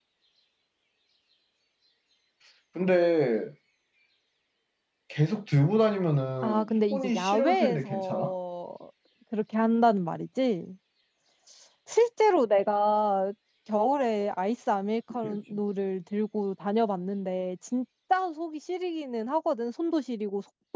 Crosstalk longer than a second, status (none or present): present